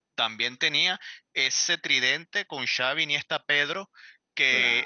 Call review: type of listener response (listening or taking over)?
listening